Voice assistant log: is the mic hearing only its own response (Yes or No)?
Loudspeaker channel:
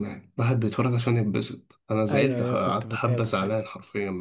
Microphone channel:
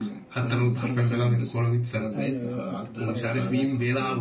No